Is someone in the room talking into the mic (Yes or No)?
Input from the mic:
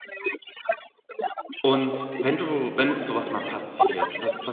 Yes